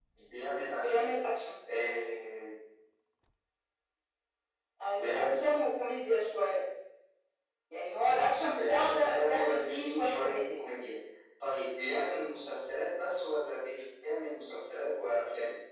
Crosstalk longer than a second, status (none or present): present